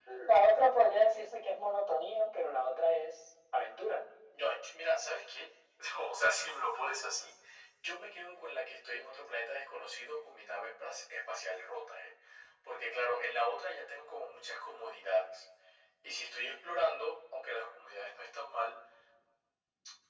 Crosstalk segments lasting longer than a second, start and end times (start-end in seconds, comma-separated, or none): none